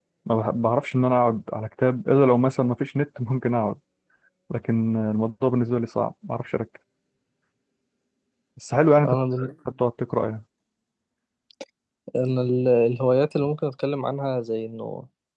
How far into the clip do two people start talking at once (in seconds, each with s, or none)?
none